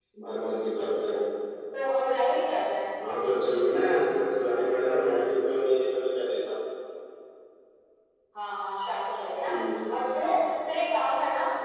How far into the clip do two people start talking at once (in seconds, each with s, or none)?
none